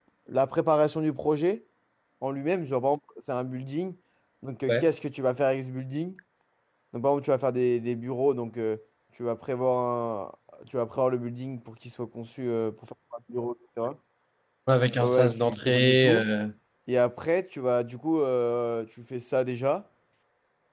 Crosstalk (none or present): present